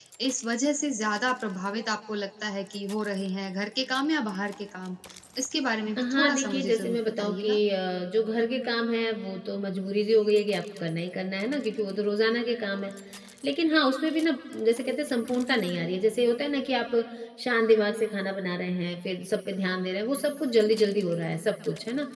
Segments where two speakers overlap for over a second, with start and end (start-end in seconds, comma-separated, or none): 6.0-7.6